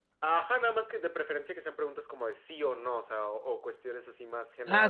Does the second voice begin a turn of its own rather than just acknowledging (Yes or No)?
Yes